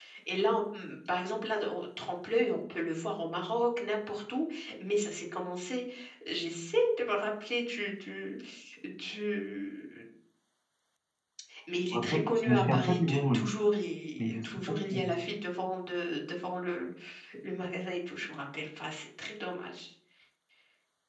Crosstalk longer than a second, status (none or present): present